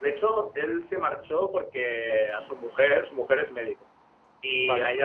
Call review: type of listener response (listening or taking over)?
listening